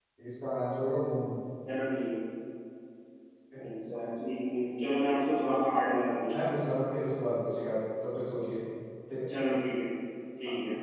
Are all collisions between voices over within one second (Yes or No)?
Yes